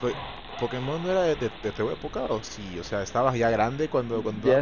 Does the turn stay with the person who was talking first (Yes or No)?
No